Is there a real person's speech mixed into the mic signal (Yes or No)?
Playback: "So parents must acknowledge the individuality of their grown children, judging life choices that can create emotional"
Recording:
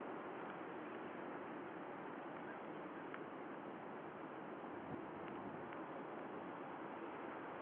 No